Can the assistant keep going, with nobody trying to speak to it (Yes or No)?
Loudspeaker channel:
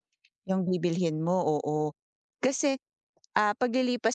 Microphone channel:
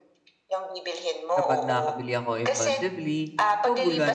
No